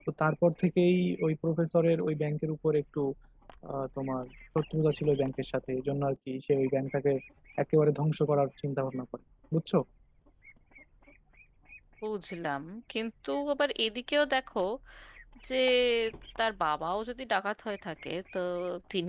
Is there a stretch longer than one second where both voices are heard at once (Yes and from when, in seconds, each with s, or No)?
No